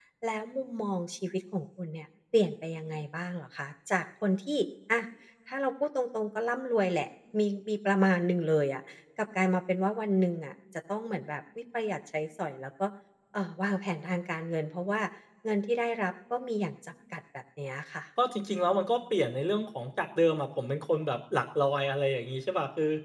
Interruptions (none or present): none